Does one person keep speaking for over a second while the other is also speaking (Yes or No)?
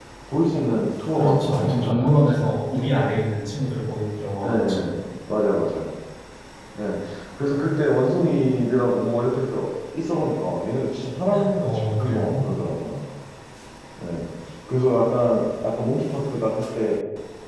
Yes